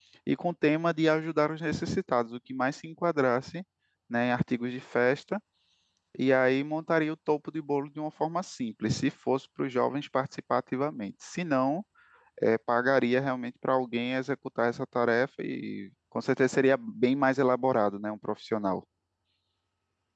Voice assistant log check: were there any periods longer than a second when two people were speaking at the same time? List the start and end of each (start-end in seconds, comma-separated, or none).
none